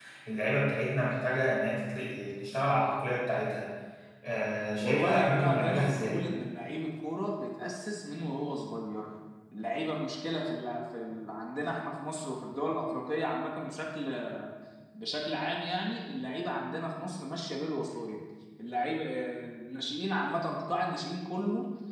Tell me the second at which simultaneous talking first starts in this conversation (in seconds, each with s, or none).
4.8 s